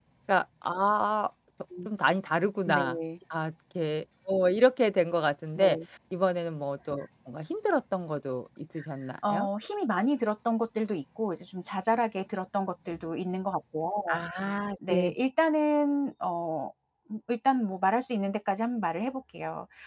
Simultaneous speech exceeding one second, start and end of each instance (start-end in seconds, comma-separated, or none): none